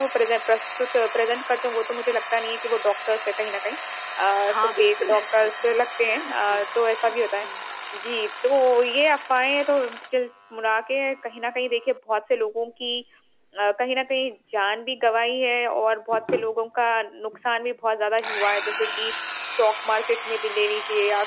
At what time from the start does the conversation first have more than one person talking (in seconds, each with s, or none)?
4.4 s